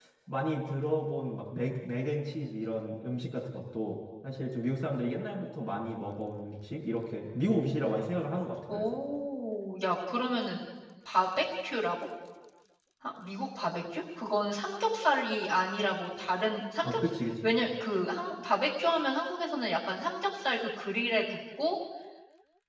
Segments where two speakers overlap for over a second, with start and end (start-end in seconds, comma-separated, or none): none